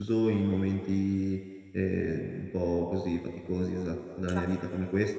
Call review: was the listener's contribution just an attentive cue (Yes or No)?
Yes